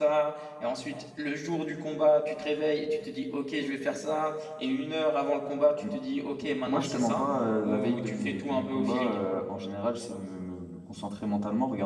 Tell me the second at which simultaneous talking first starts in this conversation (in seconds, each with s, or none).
6.7 s